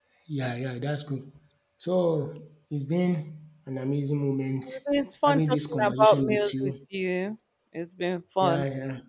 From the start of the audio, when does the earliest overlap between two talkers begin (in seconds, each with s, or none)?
5.3 s